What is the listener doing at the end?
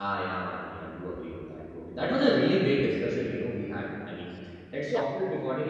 listening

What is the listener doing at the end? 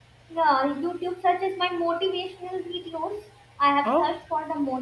listening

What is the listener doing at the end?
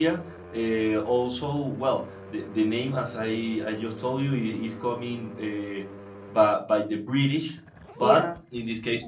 listening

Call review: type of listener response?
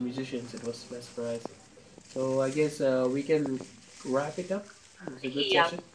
taking over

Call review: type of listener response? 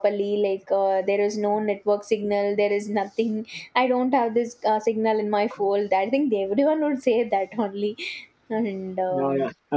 taking over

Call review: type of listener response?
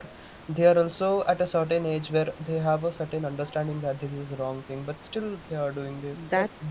taking over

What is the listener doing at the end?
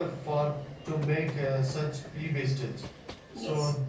listening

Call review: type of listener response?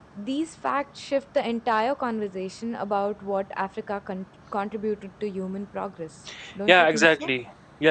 taking over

